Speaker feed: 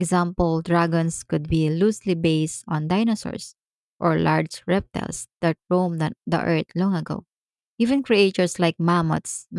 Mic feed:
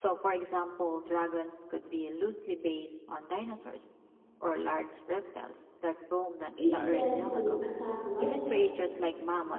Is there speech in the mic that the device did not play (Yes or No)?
Yes